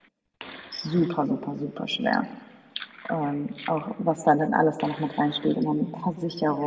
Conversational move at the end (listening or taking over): listening